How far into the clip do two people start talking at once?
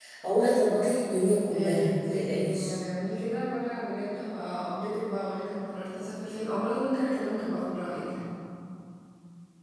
1.5 s

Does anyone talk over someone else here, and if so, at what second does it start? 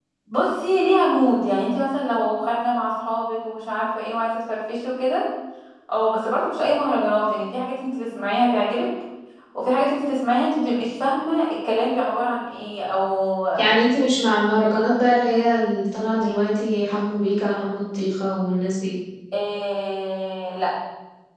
none

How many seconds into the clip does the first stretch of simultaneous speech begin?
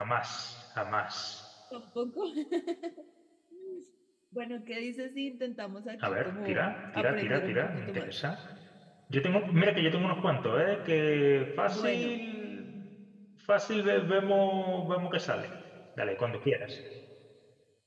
6.0 s

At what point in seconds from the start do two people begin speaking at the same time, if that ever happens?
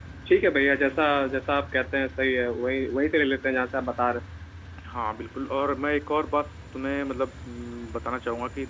none

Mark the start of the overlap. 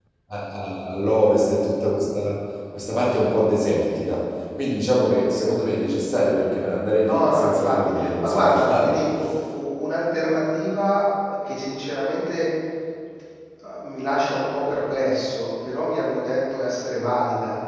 7.0 s

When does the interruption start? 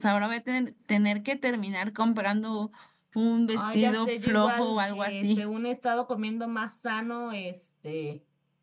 3.5 s

